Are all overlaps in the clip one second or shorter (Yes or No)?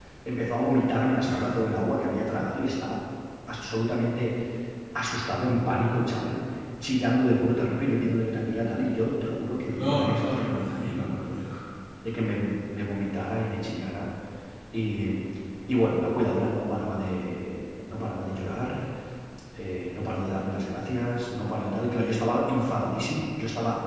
No